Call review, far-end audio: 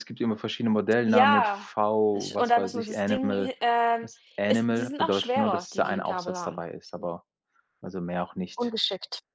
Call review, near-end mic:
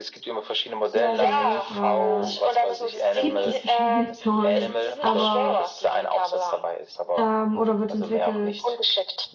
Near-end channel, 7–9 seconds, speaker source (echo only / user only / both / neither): both